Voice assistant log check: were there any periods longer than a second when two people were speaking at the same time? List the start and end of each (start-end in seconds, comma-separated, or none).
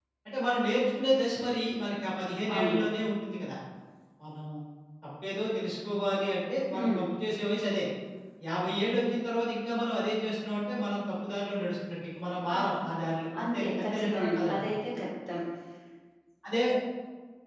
13.4-14.7